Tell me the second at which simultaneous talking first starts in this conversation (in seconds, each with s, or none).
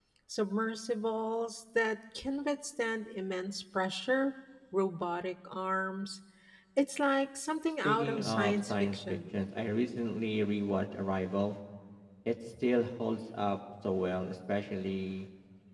7.8 s